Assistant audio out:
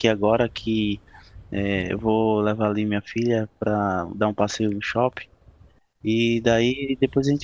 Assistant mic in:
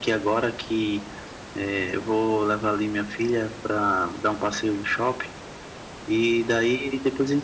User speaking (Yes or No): No